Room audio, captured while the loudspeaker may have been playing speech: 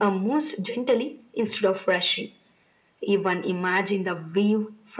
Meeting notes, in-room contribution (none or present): none